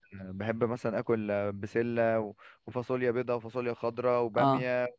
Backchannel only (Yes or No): Yes